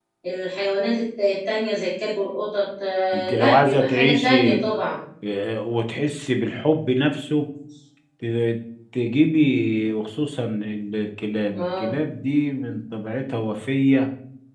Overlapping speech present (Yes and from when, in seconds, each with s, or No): Yes, from 3.1 s